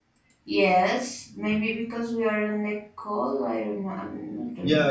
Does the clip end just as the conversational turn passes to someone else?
Yes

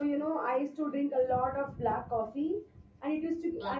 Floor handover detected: No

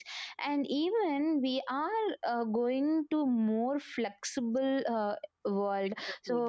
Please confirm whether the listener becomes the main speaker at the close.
No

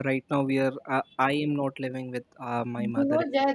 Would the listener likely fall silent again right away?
No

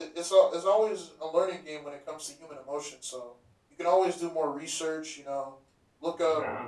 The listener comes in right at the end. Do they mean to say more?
No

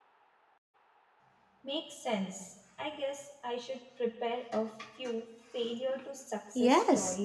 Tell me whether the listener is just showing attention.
No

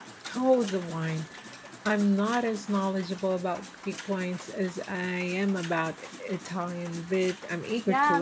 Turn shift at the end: Yes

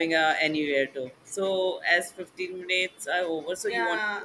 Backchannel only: No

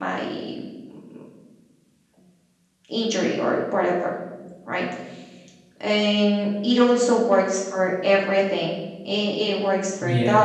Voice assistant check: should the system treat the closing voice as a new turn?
No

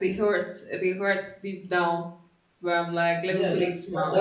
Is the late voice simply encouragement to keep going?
No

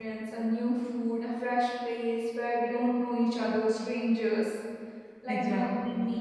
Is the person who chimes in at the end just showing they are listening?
Yes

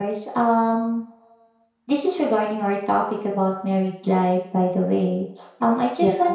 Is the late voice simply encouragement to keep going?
Yes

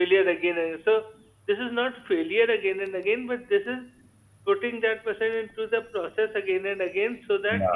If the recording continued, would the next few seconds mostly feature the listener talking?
No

